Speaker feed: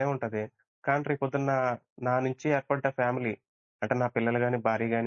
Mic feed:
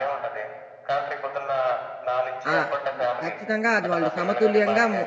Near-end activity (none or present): present